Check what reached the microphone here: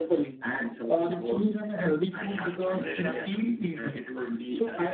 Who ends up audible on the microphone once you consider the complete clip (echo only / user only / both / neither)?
both